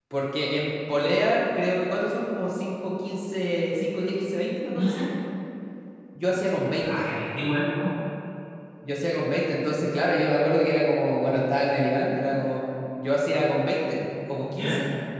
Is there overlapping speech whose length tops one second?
No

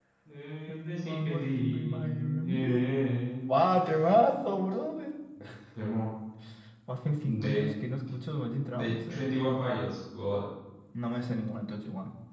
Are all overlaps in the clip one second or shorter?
No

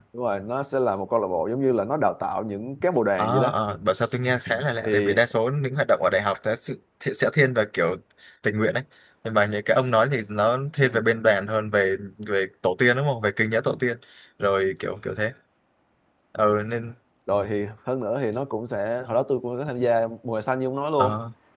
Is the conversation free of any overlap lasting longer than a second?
Yes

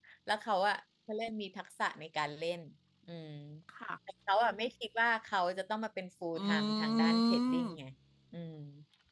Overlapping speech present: Yes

